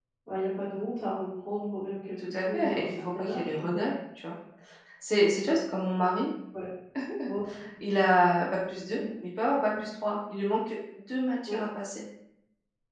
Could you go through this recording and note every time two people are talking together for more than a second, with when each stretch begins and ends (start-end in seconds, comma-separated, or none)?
2.3-3.6